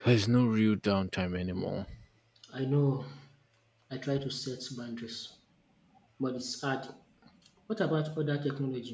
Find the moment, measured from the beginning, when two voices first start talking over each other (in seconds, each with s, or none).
none